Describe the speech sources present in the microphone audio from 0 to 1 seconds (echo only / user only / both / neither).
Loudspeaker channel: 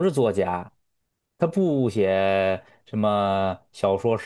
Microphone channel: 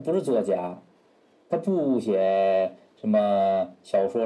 echo only